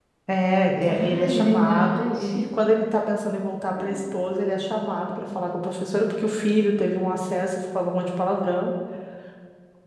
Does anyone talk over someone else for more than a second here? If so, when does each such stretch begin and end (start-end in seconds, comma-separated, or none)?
0.8-2.4